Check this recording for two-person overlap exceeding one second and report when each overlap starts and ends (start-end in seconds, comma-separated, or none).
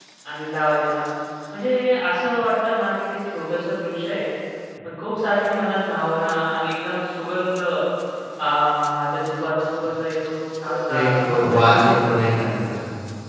10.6-12.0